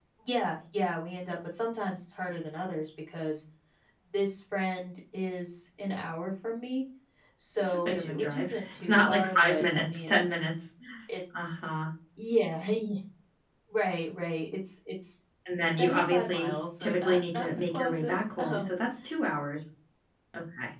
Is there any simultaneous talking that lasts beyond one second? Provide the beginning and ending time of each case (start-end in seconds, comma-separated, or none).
7.7-10.2, 15.7-18.8